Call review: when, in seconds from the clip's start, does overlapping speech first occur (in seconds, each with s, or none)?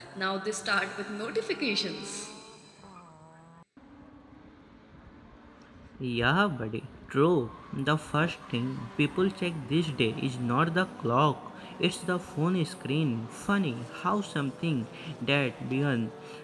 none